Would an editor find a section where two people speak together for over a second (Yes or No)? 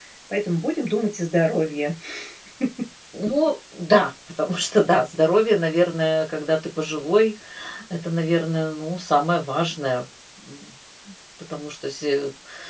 No